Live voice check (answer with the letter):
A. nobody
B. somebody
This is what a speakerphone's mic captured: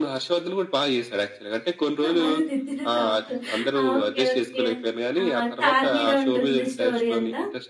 B